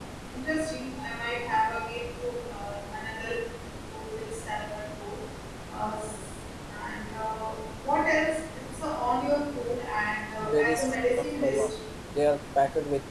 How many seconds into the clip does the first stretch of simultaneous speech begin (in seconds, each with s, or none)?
10.4 s